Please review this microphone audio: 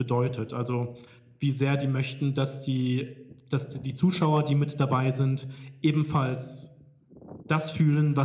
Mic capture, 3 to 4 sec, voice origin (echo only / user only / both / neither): user only